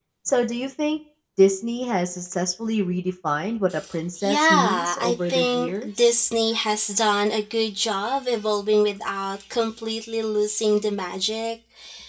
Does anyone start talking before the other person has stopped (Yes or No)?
Yes